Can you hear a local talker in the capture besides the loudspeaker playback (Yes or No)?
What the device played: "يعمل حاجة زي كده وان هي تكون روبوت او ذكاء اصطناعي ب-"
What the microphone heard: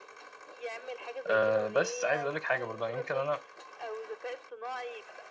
Yes